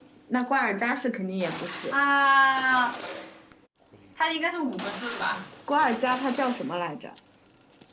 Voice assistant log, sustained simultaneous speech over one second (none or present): none